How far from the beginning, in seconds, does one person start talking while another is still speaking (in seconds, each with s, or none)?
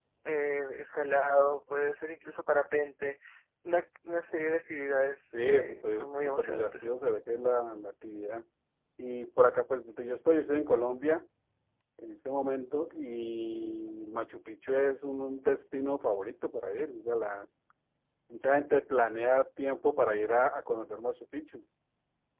5.3 s